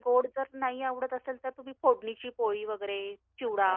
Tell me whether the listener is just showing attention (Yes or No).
No